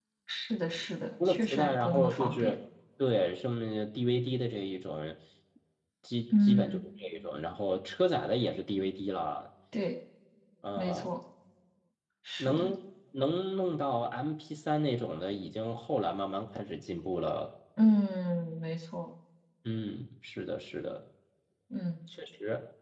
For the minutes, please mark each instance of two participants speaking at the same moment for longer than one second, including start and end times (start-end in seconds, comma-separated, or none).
1.2-2.5